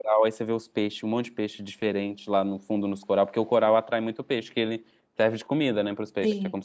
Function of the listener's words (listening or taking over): taking over